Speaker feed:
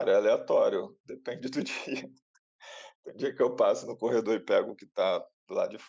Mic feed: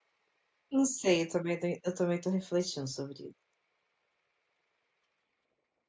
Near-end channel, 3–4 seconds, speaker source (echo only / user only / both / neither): user only